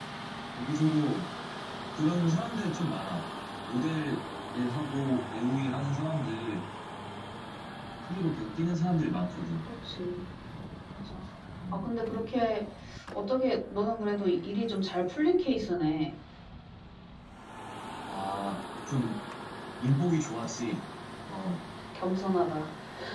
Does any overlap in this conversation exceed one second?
No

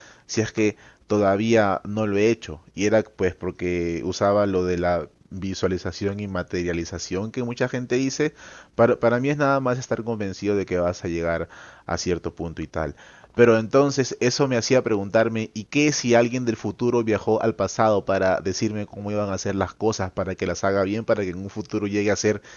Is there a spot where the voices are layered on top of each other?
No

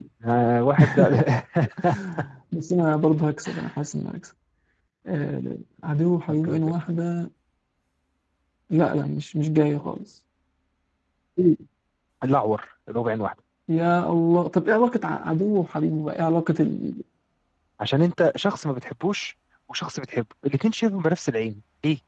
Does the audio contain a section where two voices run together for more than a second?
No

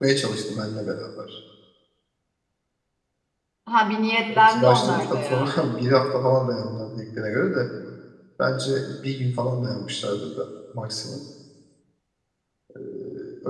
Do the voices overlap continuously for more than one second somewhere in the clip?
Yes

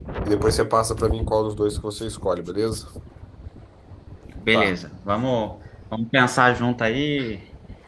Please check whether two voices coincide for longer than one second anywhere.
No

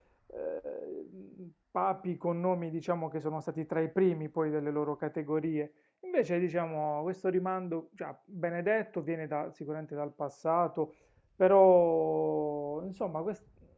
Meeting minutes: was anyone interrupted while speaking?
No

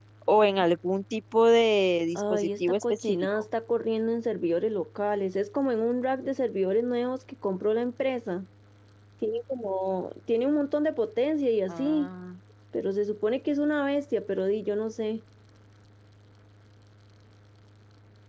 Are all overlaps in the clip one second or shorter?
No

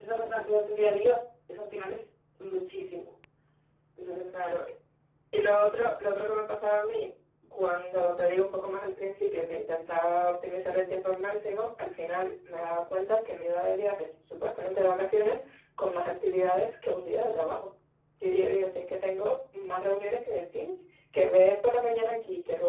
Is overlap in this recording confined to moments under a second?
Yes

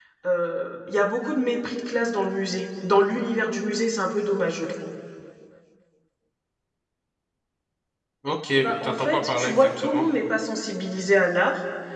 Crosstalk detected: Yes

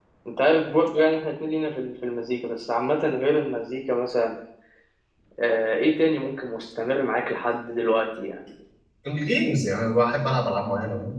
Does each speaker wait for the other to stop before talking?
Yes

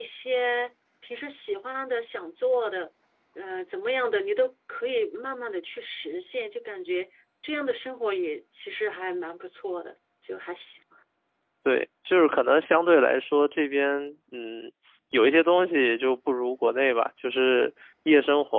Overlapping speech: No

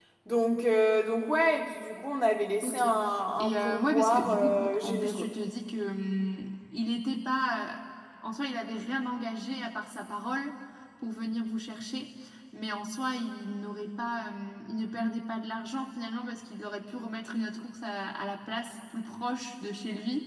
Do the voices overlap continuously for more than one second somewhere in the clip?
Yes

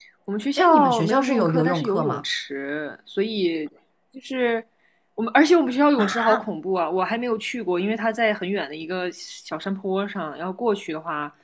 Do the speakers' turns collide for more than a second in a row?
Yes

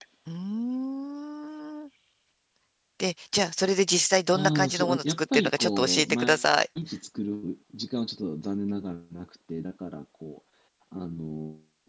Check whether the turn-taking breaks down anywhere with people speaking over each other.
Yes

